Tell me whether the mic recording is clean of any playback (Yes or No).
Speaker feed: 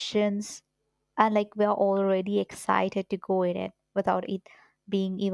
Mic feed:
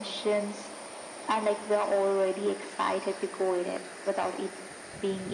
No